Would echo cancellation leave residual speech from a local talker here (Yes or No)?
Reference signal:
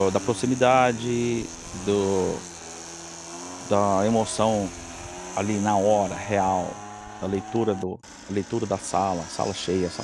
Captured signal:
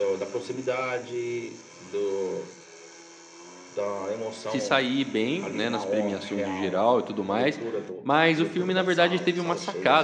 Yes